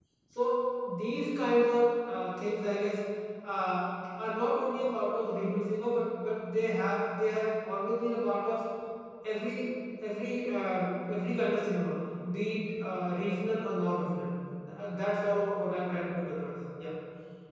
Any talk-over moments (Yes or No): No